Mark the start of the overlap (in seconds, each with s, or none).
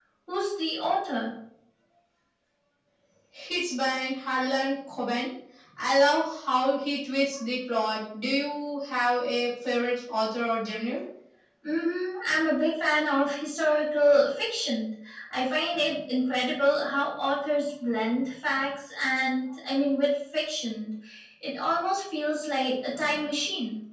none